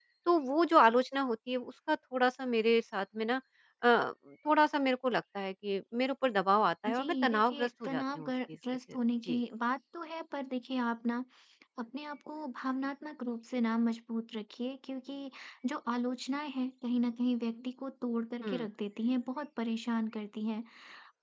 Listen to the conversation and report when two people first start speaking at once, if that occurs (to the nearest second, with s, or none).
7 s